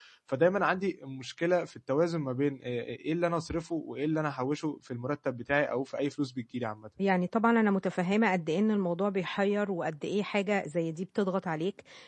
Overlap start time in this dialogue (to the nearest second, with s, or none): none